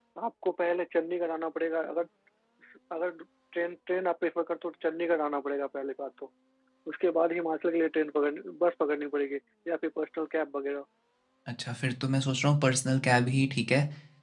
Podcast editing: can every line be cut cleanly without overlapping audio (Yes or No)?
Yes